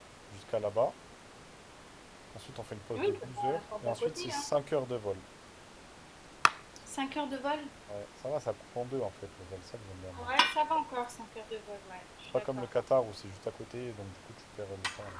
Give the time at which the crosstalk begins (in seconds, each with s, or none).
2.9 s